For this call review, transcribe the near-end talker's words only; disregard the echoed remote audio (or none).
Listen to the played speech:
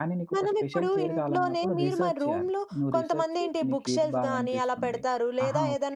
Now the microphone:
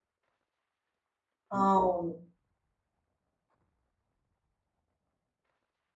అవును.